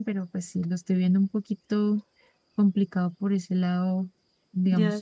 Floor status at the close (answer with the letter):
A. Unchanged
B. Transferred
B